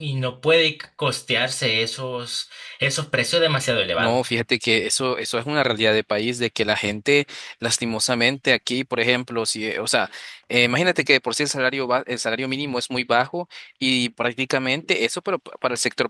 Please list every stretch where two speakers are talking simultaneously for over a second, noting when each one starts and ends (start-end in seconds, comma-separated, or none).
none